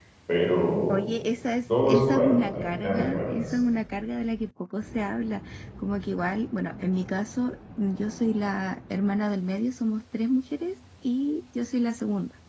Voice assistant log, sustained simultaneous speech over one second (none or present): present